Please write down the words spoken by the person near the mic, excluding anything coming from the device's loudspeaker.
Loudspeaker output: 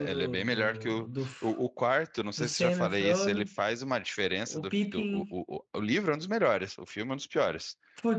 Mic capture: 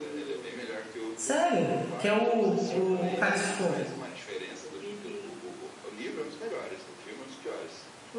Sério? Que é o, o, o Cálice de Fogo.

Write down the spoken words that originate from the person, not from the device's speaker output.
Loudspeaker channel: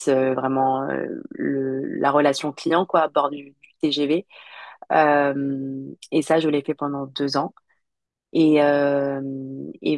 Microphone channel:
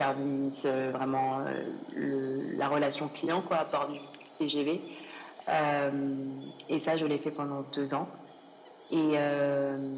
none

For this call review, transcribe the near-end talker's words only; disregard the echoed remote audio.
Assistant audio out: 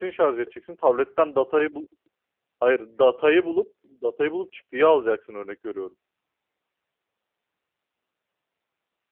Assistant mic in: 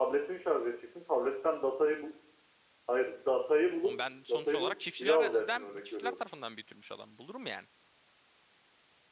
O ben sonuç olarak çiftçilerden çiftçiler tarafından büyütülmüş adam. Bulurum yani.

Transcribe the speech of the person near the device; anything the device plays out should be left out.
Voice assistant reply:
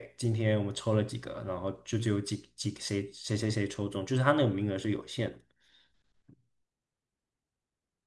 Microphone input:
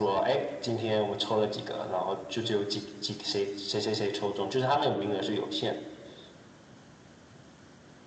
none

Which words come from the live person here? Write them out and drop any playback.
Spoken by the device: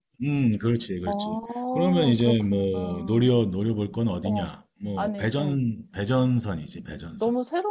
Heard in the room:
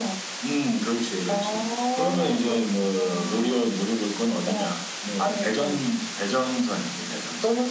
none

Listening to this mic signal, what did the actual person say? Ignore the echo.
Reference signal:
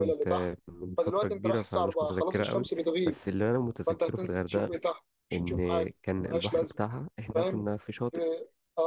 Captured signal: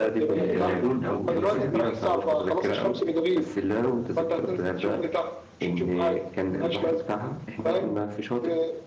آه، اللاجون او اللسان

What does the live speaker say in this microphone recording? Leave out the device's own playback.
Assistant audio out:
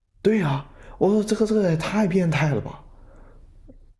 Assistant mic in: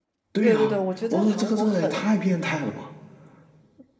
对对对，我觉得韩国很，

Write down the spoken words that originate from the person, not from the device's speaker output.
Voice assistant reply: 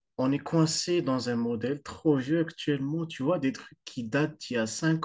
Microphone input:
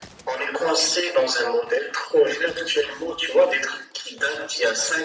none

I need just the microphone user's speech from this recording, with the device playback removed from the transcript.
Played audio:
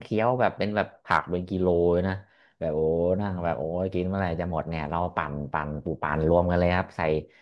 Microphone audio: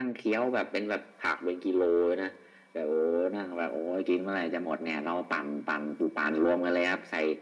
none

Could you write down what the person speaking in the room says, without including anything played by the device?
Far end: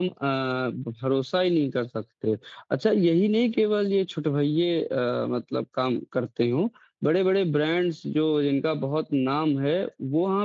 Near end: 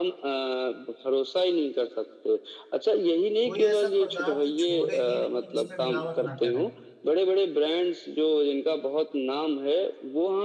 कोई ऐसा पदार्थ छोड़े ही नहीं है जिसमें मिलावट ना करें

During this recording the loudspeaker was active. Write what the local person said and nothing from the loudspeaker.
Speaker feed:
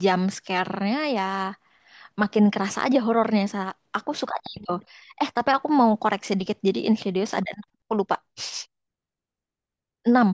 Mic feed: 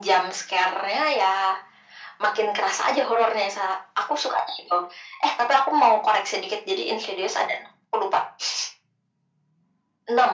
none

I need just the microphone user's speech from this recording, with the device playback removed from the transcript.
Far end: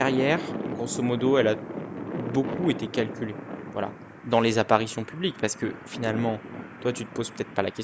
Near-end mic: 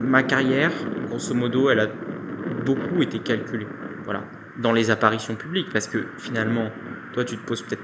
none

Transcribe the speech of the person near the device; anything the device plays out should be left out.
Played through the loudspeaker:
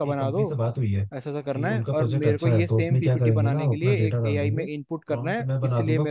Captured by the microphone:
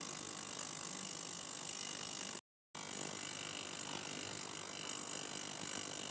none

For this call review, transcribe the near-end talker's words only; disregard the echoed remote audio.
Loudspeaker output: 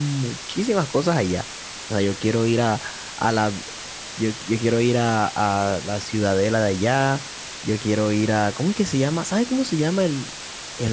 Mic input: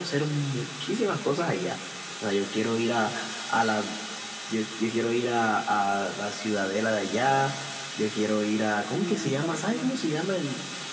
tu pareja con la que irías,

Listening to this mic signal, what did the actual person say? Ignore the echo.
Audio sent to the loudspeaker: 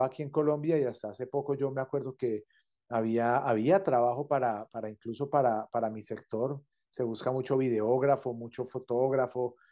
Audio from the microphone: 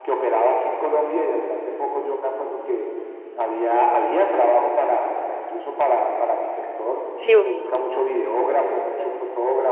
Sí, u-

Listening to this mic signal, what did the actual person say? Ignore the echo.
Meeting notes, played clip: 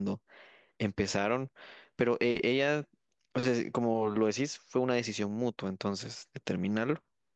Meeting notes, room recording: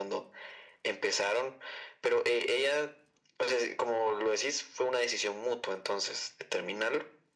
none

